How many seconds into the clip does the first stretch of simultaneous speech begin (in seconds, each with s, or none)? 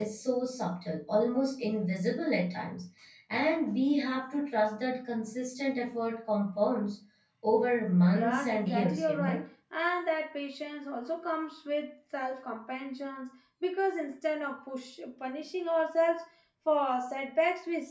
8.1 s